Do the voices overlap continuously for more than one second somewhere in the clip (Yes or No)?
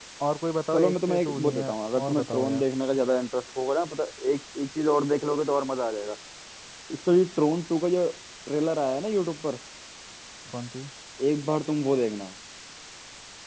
Yes